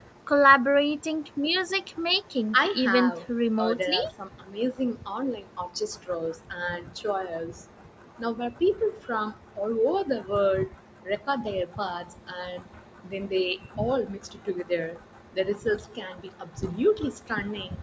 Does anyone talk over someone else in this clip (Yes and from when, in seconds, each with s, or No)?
Yes, from 2.5 s